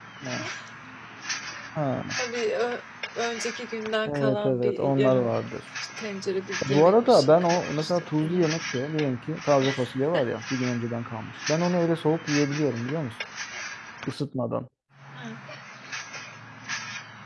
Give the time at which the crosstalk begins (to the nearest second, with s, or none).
4 s